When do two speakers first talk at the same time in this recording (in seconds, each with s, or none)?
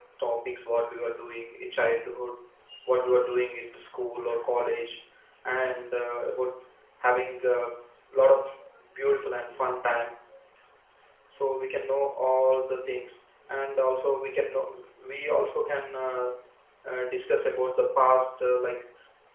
none